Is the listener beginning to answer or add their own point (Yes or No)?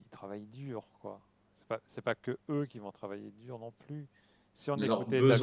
Yes